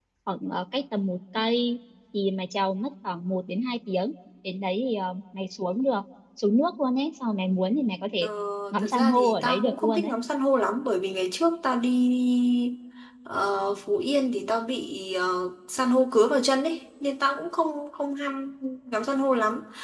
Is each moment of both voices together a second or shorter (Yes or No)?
No